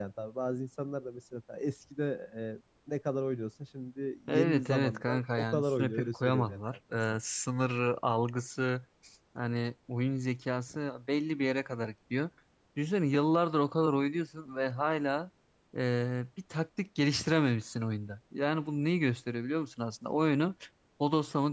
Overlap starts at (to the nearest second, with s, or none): 4 s